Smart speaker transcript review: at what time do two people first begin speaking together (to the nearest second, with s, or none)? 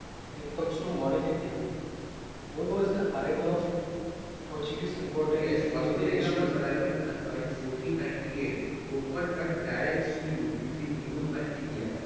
5 s